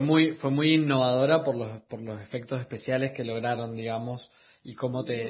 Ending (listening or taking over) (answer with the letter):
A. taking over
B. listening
A